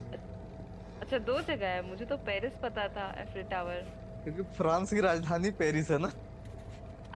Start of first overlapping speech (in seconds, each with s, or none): none